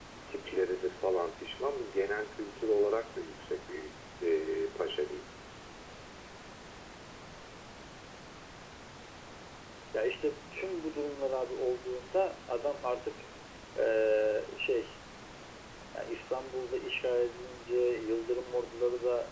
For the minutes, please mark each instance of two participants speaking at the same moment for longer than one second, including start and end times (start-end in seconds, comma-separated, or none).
none